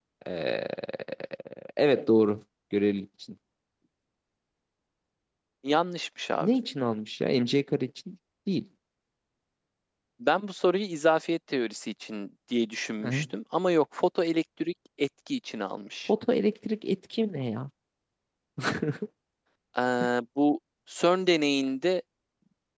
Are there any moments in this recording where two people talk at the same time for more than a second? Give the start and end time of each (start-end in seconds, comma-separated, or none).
none